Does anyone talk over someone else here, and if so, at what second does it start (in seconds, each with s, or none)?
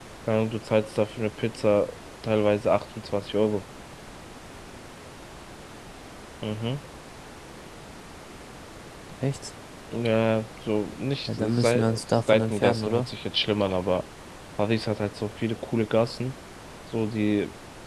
11.3 s